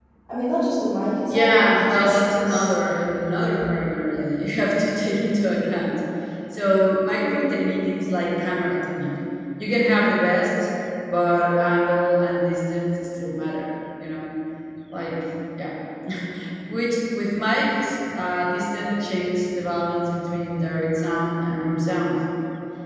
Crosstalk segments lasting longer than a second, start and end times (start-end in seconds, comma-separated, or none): 1.3-2.7